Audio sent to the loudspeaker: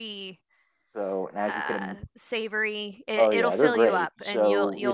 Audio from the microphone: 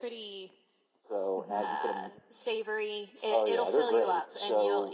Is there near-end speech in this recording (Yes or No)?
Yes